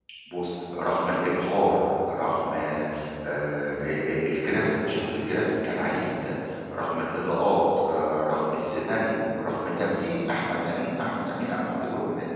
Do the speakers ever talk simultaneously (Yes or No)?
No